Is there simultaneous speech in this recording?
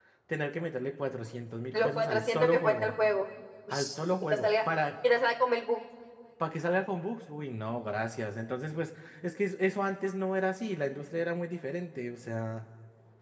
Yes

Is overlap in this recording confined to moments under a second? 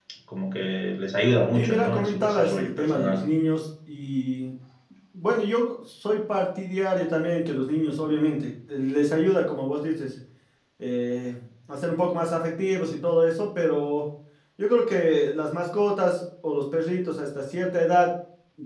No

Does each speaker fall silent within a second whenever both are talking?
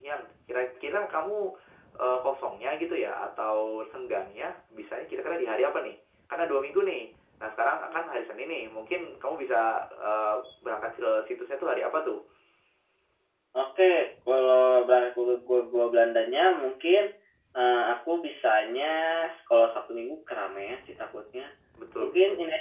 Yes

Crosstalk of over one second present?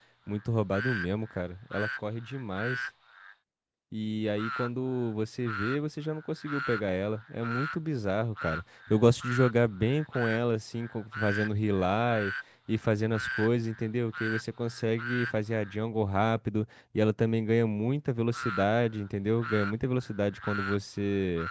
No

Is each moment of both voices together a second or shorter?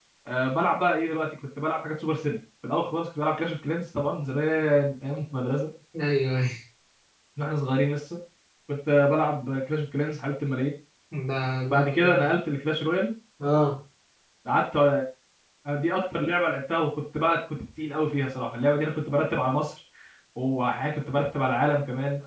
Yes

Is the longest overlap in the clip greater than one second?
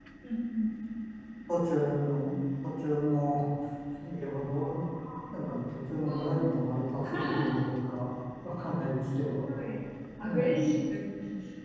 No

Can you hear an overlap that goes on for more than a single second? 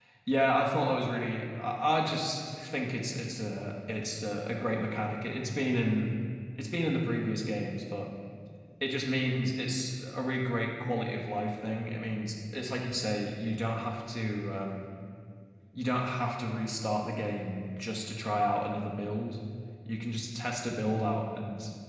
No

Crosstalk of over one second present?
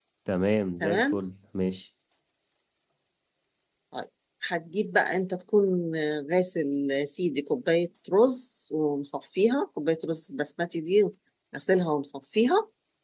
No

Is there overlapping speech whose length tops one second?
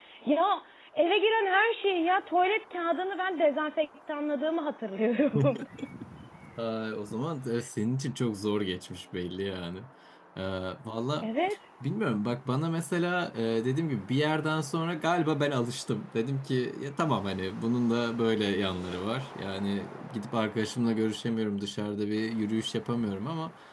No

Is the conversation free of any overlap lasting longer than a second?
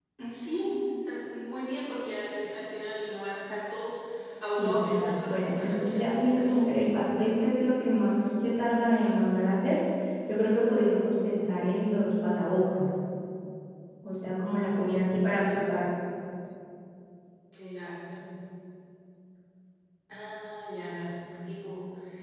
No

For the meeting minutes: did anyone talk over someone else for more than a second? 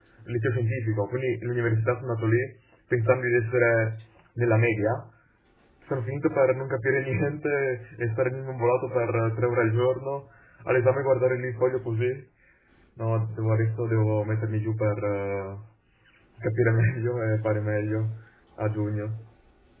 No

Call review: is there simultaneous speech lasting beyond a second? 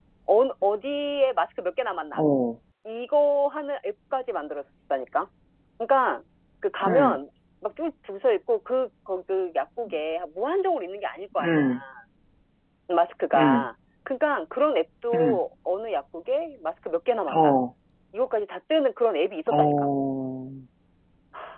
No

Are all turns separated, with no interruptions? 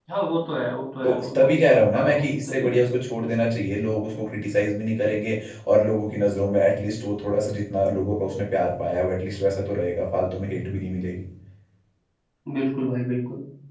No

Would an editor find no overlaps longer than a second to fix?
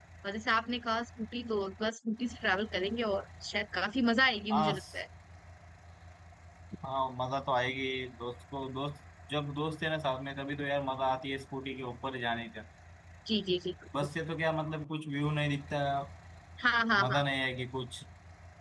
Yes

